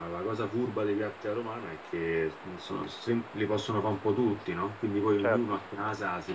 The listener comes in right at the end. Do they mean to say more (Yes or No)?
No